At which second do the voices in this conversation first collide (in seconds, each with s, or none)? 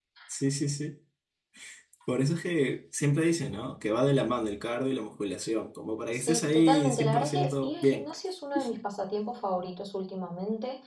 6.1 s